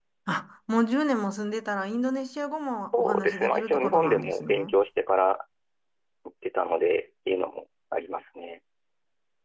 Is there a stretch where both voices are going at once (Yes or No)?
Yes